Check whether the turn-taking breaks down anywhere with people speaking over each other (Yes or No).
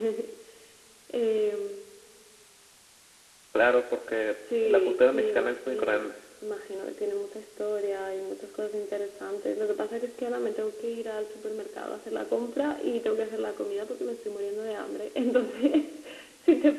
Yes